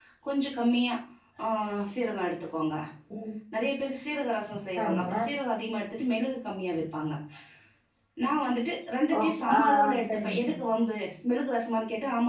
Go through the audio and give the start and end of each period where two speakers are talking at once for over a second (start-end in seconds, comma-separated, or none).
9.2-10.6